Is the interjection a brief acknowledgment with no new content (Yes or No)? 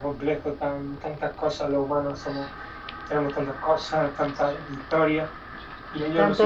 Yes